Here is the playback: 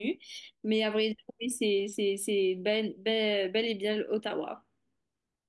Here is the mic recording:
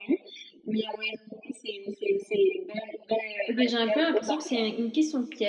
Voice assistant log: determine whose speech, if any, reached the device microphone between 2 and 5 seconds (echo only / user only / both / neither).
both